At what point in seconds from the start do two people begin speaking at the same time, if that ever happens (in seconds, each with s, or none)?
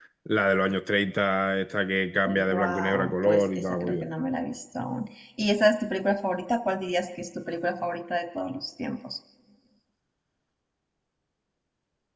2.2 s